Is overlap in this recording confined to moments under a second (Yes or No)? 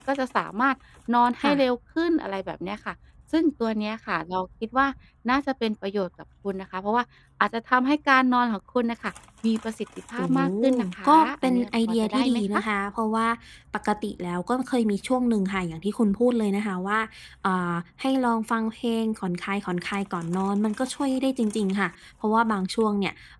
No